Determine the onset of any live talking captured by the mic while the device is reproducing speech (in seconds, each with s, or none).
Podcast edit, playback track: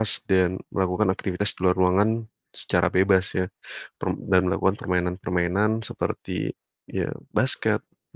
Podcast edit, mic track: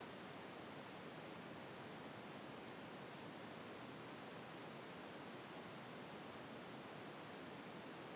none